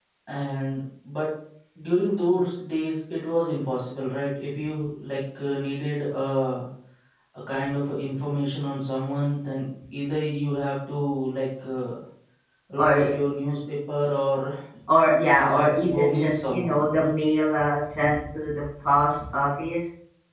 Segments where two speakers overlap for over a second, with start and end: 15.3-16.8

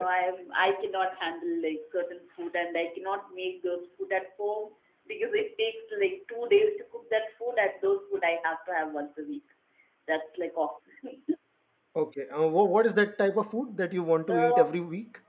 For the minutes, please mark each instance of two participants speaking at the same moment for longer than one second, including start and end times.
none

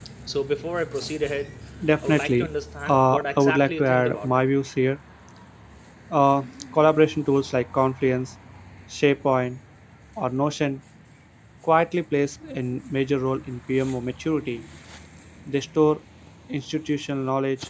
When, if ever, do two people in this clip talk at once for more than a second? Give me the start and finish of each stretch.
2.9-4.3

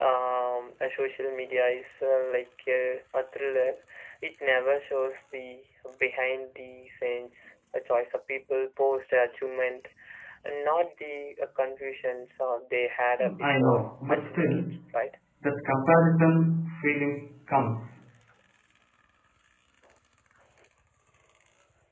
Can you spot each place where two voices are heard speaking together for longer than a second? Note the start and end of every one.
13.4-14.6

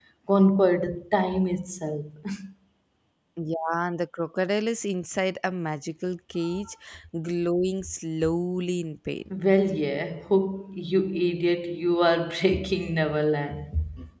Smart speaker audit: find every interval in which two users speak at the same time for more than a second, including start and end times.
none

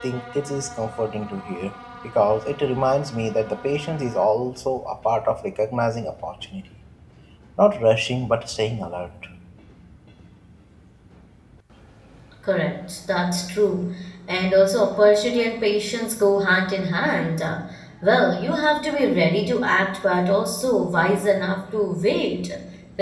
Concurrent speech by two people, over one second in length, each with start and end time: none

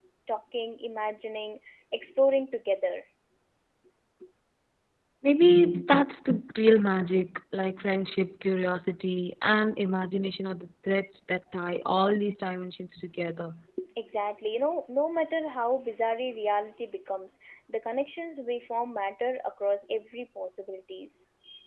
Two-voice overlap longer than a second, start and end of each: none

